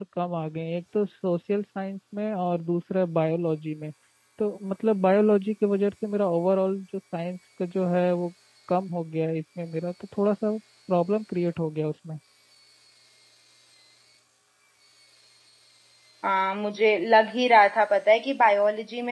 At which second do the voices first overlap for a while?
none

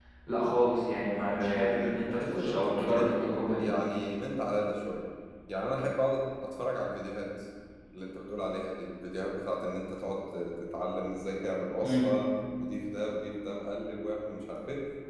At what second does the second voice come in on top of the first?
1.3 s

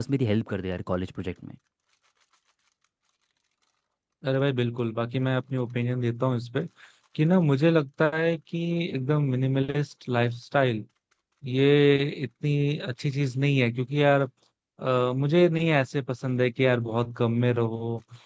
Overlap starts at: none

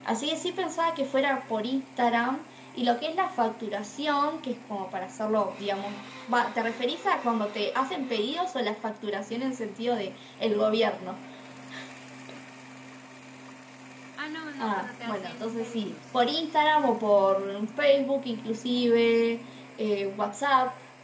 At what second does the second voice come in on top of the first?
14.6 s

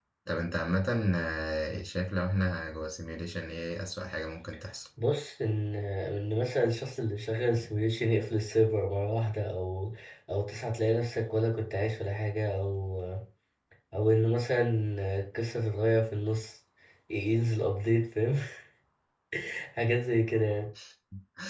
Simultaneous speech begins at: none

